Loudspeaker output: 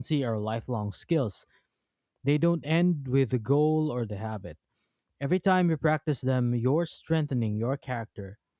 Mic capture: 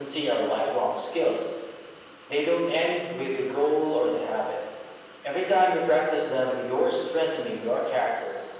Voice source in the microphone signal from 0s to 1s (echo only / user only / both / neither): echo only